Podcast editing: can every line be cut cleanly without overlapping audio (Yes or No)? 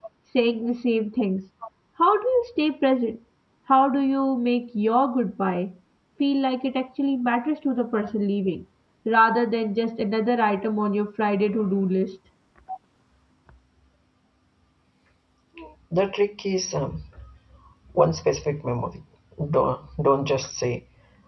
Yes